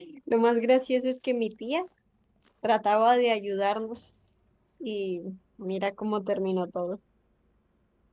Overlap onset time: none

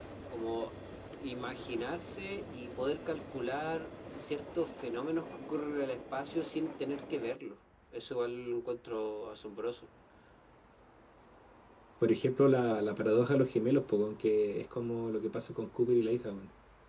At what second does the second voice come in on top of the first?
none

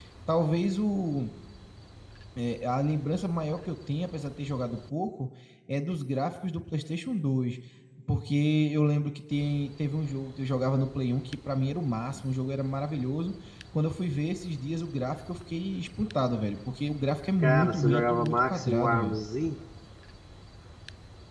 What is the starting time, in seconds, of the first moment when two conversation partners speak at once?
17 s

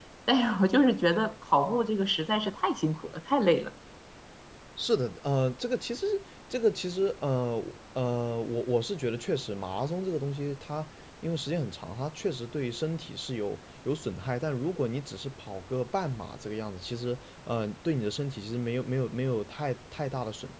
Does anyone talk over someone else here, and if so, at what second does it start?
none

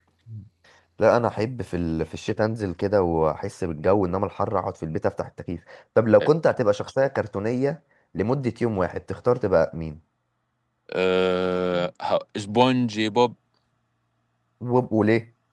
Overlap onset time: none

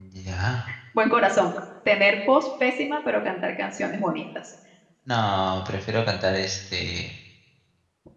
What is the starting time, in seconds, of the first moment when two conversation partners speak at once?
none

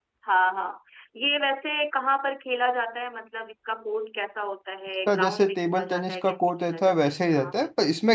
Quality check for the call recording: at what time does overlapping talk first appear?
5 s

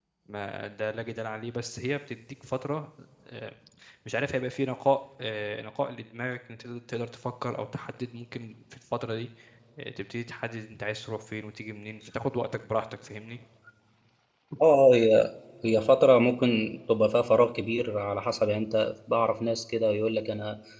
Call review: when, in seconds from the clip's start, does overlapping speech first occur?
none

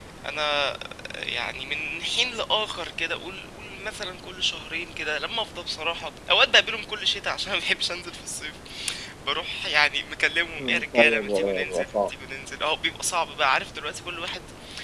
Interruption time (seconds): 11 s

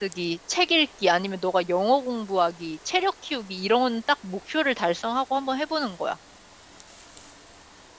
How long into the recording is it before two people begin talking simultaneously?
none

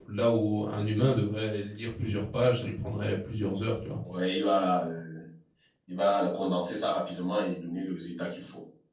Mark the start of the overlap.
none

